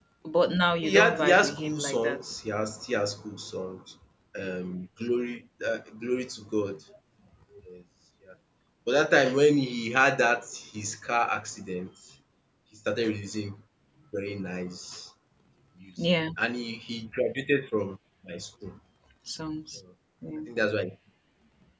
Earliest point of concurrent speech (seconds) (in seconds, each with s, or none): 0.9 s